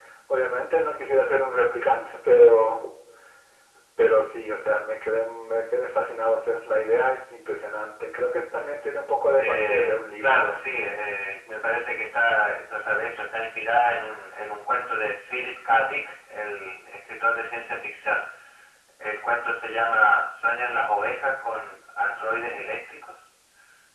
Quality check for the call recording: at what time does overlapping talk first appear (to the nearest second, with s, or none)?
9 s